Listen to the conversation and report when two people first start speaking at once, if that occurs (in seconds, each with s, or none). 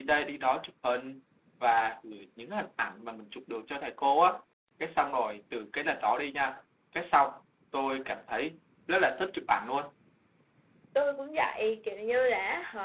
none